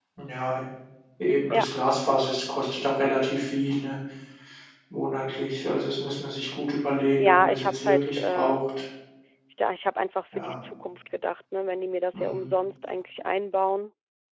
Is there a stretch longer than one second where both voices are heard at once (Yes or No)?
Yes